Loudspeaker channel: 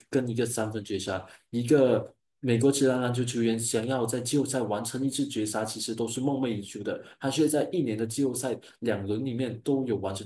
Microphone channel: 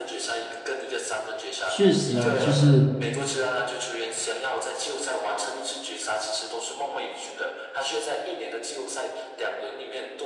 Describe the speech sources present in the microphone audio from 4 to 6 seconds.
echo only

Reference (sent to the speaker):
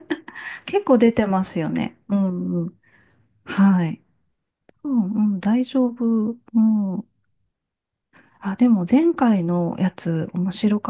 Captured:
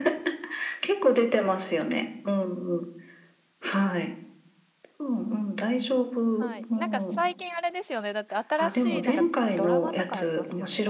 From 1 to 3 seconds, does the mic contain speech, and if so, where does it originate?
echo only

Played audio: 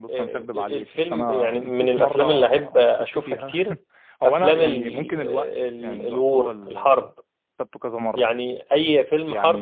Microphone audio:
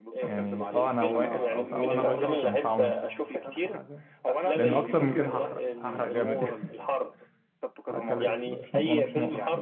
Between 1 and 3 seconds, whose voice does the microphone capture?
both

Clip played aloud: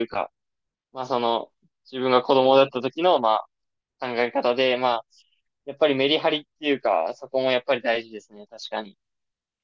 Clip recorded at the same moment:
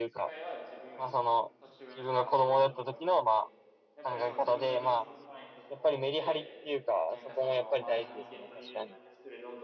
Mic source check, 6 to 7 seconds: both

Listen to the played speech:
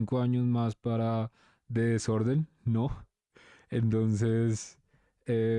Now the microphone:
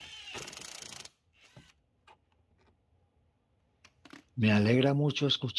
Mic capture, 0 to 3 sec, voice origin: neither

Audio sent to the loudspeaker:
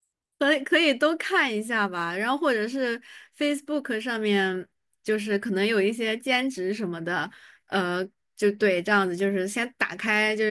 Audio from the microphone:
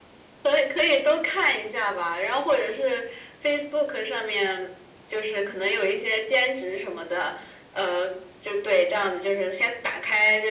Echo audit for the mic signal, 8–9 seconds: echo only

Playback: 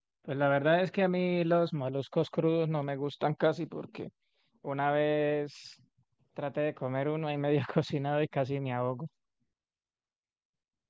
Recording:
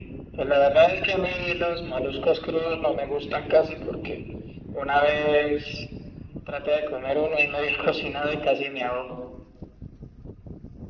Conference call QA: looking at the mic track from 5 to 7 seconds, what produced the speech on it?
echo only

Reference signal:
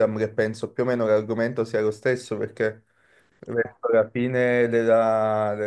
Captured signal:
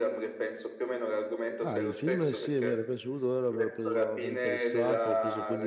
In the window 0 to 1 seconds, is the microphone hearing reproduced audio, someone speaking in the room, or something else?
echo only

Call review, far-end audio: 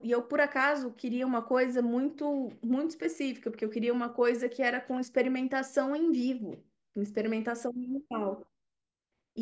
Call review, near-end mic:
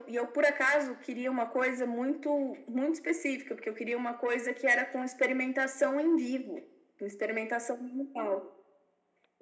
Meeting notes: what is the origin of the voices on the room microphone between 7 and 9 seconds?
echo only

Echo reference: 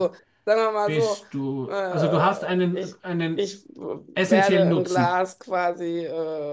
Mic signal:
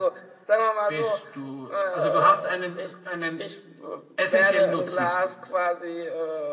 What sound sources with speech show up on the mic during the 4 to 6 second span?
echo only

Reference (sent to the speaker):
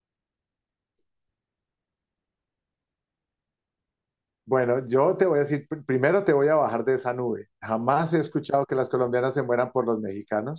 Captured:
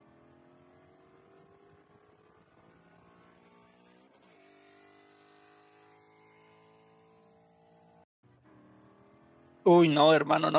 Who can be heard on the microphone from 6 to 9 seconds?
neither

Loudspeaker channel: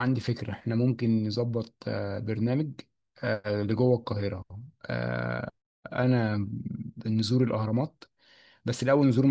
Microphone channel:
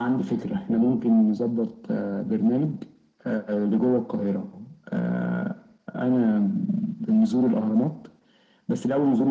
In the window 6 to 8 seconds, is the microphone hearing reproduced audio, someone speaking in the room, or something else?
echo only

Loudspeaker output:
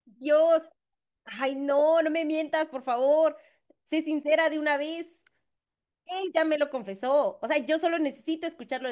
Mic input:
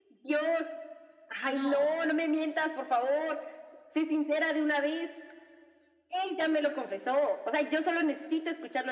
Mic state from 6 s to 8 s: echo only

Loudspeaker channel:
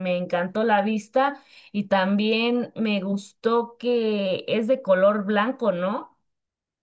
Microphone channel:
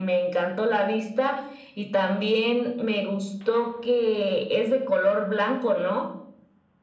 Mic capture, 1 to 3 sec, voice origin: echo only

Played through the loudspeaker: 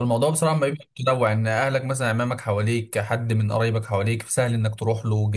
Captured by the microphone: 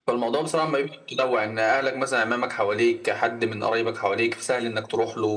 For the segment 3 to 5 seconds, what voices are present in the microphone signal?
echo only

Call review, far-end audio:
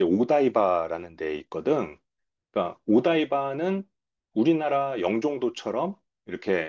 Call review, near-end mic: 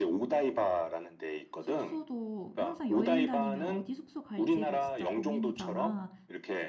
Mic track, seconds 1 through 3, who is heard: both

